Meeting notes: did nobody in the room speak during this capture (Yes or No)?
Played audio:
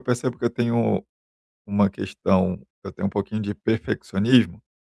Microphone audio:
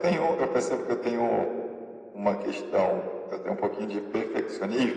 Yes